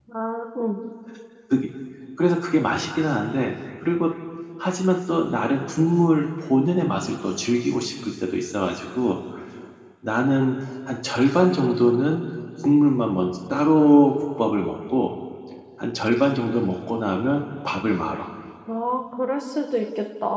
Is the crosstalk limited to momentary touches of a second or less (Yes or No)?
Yes